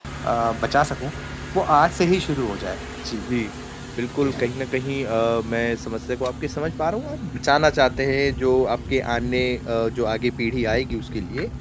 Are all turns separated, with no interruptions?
Yes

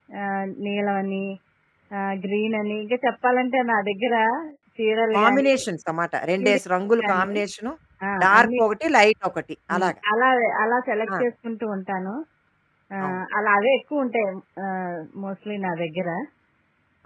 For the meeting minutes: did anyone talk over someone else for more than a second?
No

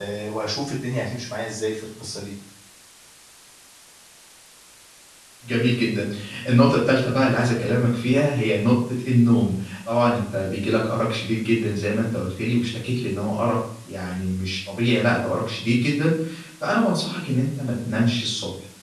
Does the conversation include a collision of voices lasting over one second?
No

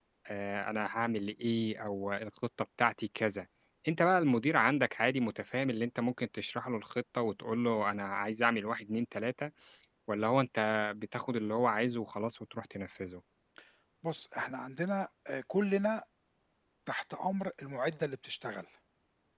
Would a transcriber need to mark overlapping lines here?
No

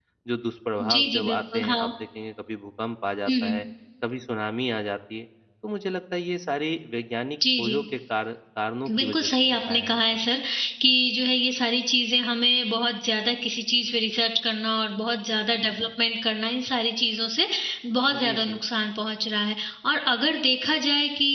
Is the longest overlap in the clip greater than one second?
Yes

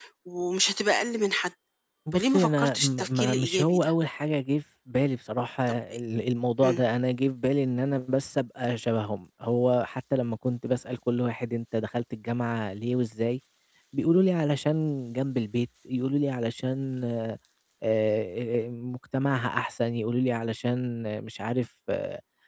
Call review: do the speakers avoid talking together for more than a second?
No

